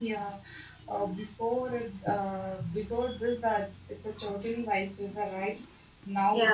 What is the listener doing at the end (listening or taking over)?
listening